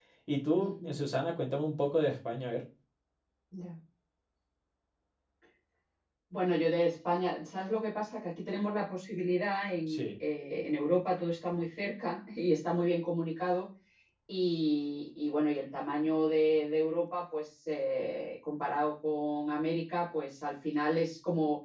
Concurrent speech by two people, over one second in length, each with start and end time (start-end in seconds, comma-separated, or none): none